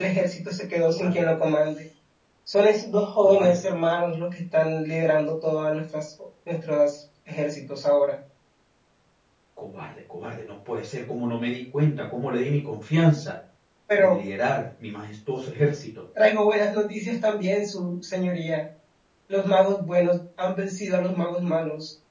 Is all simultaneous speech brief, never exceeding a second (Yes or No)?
Yes